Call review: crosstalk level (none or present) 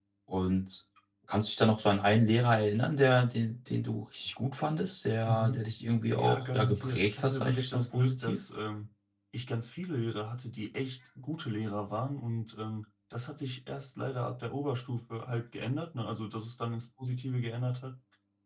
present